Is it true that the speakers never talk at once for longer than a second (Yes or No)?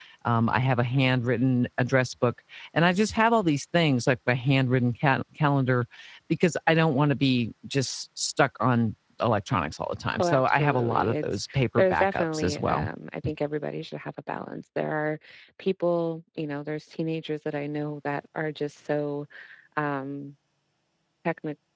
No